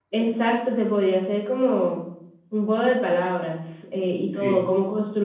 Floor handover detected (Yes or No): No